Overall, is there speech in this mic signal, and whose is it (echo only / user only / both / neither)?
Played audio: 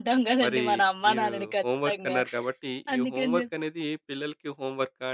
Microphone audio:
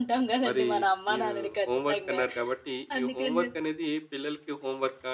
echo only